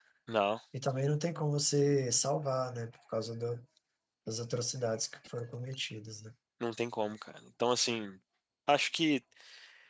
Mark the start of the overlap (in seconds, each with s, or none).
none